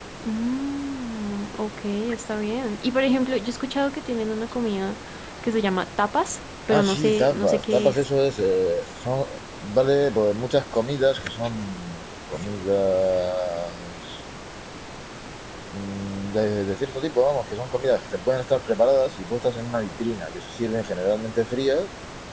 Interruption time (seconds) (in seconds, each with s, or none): 6.7 s